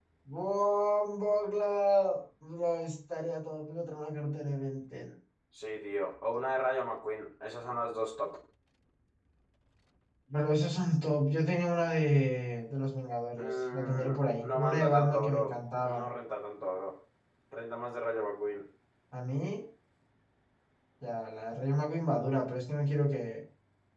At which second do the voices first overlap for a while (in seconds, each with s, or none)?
13.4 s